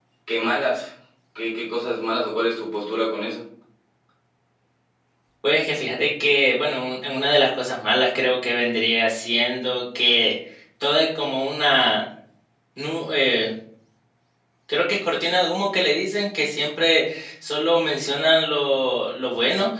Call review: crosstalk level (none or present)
none